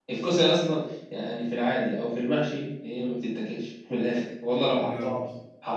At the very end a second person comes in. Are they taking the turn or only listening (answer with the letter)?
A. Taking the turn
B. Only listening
B